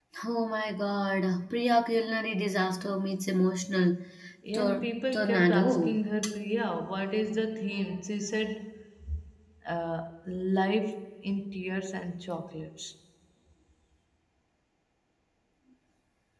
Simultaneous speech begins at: 5 s

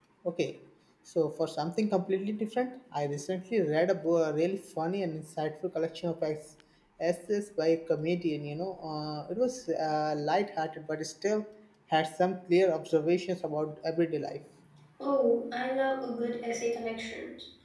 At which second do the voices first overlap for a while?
none

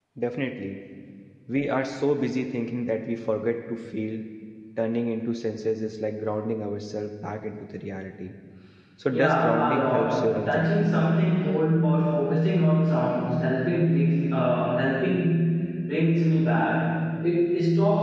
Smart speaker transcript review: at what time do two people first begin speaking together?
9 s

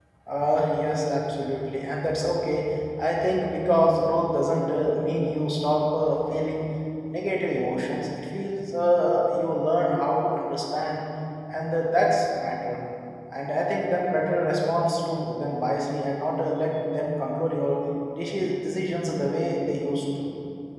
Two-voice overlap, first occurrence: none

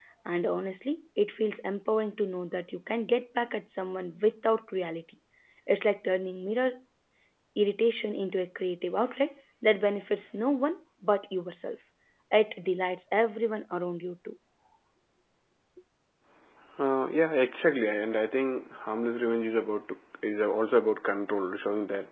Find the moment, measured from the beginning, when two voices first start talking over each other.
none

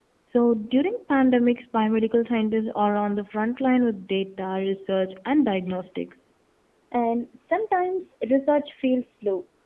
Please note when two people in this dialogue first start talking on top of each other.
none

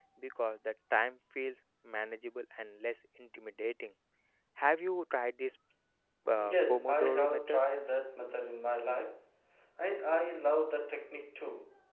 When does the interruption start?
6 s

